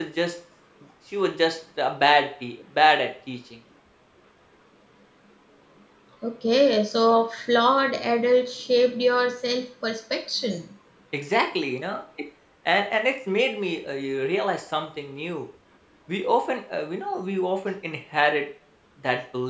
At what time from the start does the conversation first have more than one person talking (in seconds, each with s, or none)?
none